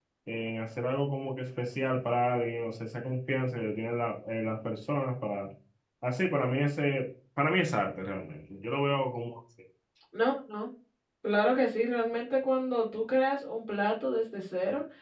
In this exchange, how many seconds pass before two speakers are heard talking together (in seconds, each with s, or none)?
none